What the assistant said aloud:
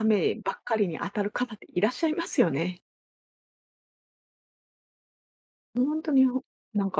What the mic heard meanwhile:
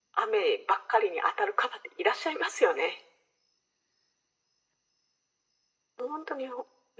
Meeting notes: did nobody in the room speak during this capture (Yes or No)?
Yes